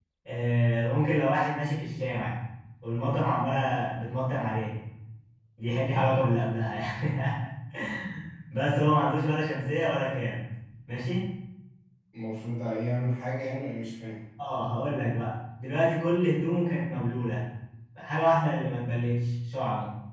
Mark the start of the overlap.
none

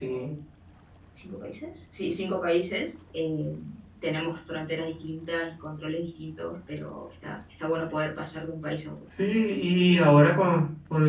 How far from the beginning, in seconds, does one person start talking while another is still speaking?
none

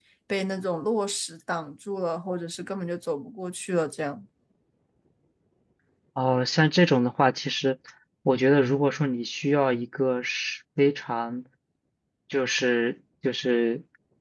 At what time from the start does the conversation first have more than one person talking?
none

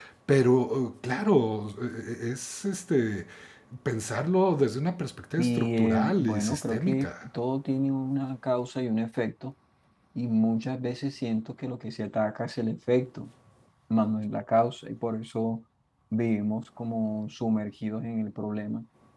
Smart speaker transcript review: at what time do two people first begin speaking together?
5.4 s

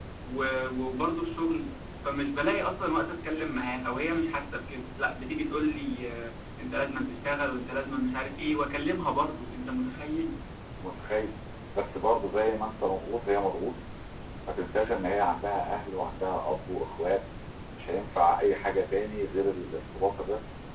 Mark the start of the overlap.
none

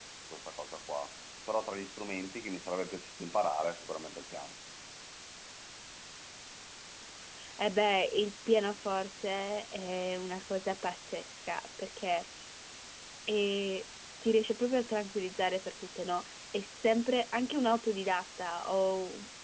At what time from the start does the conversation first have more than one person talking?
none

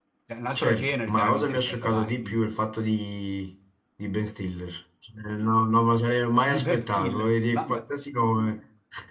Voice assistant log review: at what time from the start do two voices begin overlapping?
0.6 s

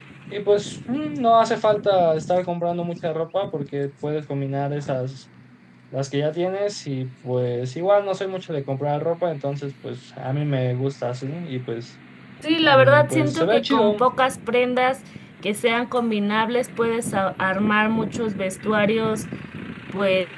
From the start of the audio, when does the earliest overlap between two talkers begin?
12.7 s

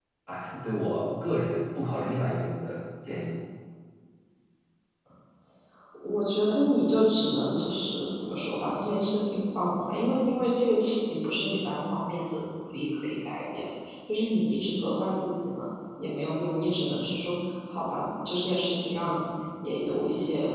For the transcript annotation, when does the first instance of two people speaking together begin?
none

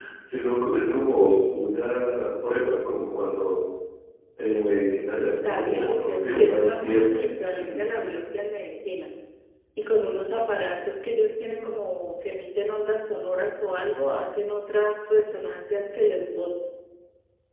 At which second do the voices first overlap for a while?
5.4 s

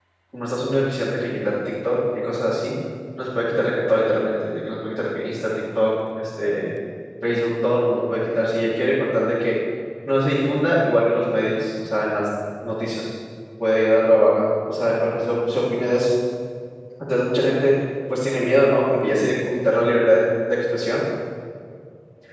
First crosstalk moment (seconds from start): none

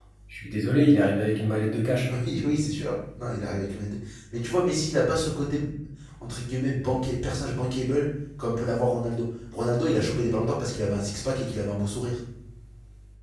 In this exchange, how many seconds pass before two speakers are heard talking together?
none

